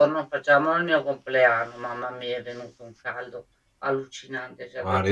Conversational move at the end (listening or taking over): taking over